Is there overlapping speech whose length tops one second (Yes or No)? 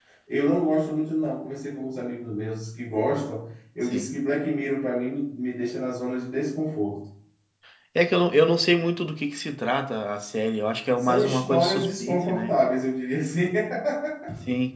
Yes